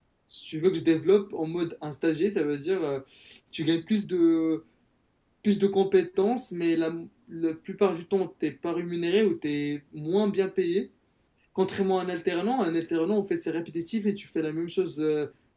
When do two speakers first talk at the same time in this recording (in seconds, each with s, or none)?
none